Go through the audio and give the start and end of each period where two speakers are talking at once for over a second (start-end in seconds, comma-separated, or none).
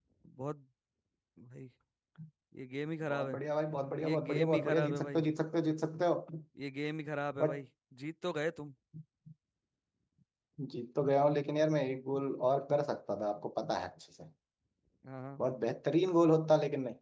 4.0-5.2